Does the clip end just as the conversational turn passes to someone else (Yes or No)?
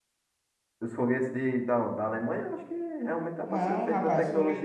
Yes